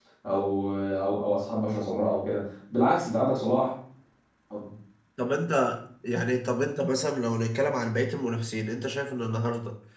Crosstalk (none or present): none